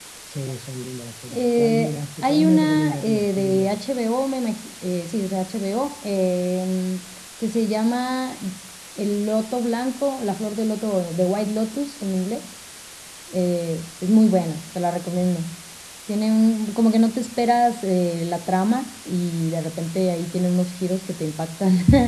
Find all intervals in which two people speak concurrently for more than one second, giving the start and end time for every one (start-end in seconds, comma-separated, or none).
1.3-3.7